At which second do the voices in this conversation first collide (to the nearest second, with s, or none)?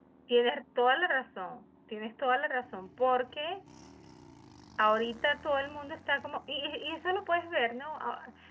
none